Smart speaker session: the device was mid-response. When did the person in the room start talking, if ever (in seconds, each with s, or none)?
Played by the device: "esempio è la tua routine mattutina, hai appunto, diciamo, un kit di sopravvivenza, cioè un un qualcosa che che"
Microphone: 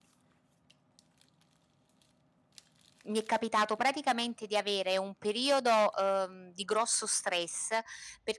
3.1 s